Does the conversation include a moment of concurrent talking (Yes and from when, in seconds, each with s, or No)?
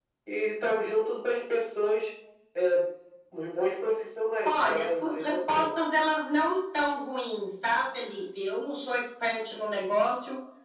Yes, from 4.4 s